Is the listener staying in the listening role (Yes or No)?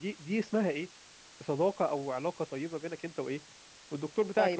No